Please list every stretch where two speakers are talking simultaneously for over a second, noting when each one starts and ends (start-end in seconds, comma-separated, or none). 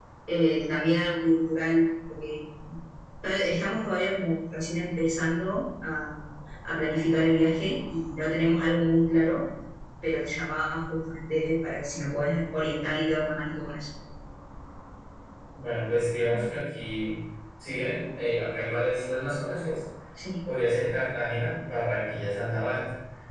none